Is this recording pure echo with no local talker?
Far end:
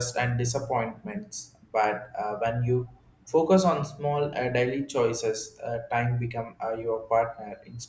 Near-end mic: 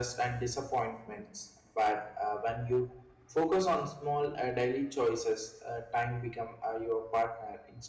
Yes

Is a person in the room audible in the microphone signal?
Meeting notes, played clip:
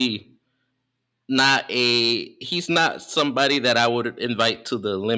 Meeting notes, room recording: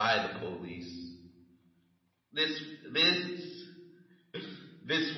Yes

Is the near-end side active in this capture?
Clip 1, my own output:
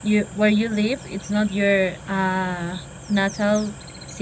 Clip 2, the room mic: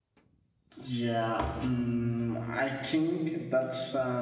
Yes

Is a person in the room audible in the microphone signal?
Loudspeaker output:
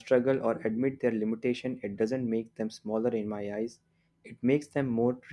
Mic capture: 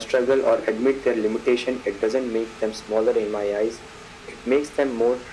No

